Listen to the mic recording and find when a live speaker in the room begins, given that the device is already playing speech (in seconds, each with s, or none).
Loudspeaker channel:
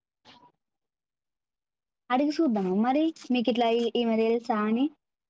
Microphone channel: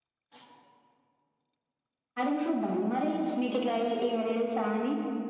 none